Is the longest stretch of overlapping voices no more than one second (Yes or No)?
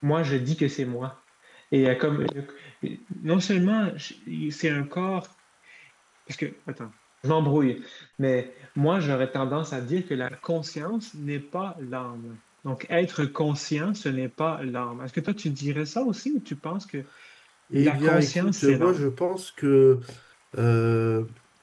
No